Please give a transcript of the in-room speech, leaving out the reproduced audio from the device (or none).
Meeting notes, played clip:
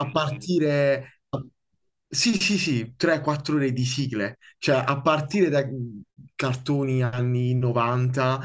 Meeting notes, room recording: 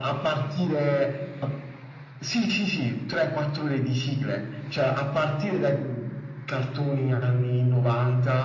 none